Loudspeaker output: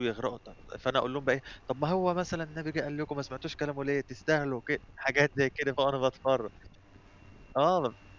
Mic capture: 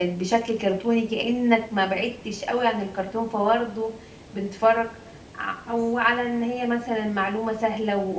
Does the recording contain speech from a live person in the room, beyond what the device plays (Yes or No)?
Yes